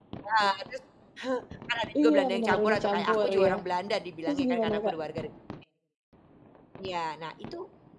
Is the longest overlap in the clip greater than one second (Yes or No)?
Yes